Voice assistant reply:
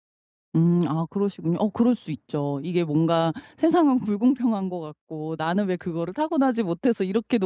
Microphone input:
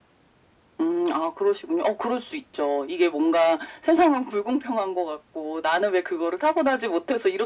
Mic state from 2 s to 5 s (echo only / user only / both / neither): echo only